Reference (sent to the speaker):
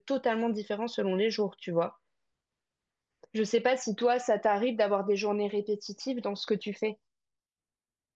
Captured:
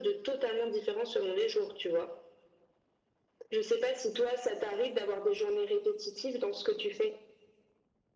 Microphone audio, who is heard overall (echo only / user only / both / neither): echo only